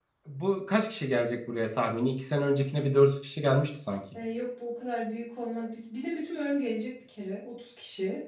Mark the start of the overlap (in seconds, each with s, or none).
none